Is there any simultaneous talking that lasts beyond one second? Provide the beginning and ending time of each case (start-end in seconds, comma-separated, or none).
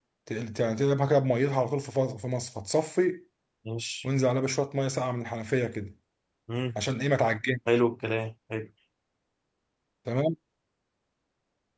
none